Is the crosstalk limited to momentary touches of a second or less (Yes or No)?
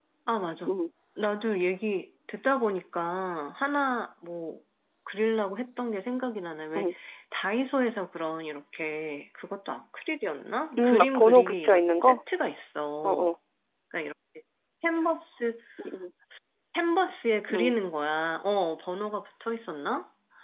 No